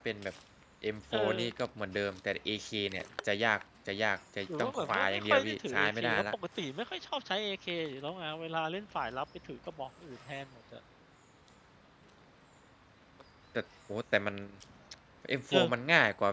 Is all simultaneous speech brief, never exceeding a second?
No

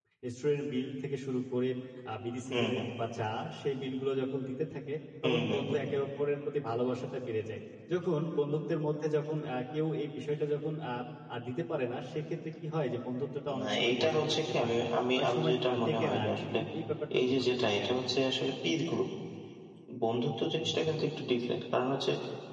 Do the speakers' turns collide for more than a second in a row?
Yes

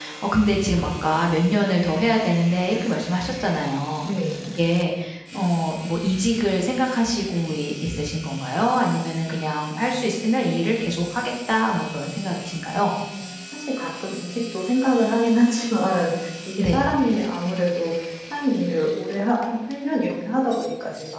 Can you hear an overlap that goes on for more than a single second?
No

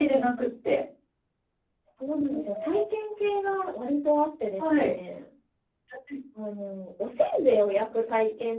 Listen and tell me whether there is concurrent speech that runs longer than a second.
No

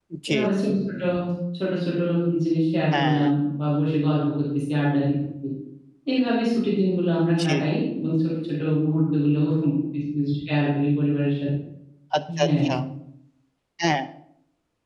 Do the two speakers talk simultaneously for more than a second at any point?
No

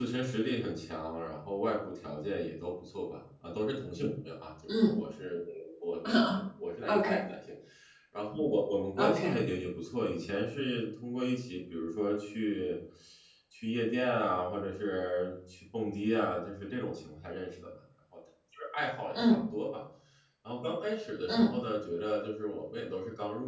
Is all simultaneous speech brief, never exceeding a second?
Yes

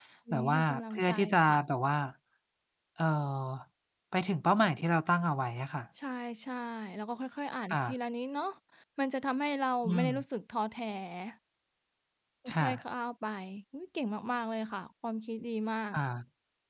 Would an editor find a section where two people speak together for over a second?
Yes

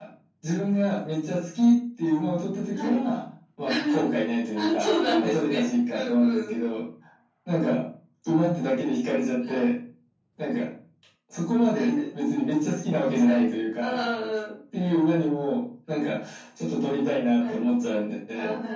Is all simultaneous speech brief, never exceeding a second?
No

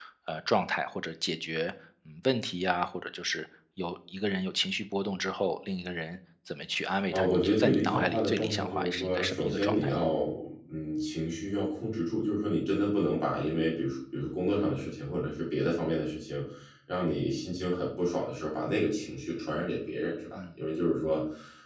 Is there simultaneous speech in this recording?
Yes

